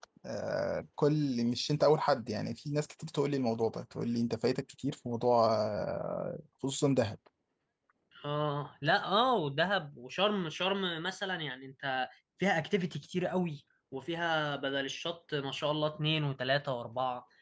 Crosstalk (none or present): none